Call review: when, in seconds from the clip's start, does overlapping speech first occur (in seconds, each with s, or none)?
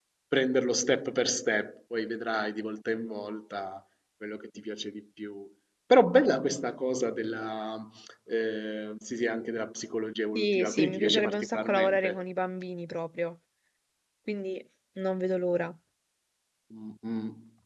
10.4 s